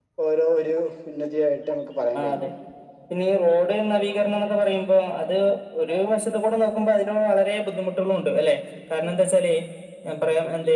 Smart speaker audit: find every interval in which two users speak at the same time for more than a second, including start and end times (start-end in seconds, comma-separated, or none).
none